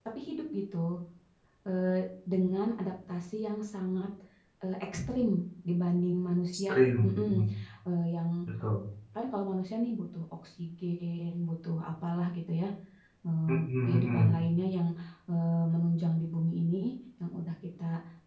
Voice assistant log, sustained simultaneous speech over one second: none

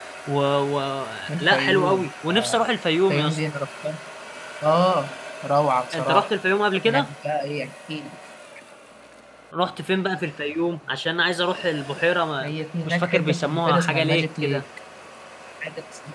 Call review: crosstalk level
present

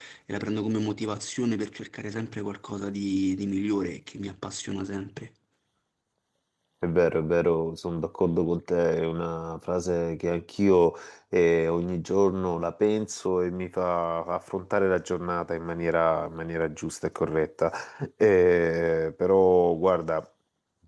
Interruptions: none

